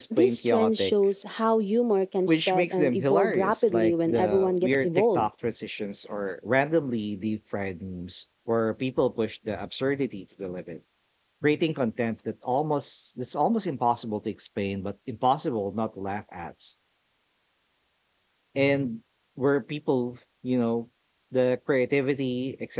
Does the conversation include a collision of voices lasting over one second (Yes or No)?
Yes